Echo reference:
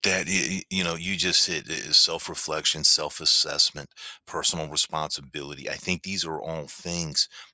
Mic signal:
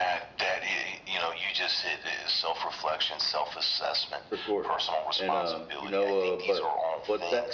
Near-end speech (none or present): present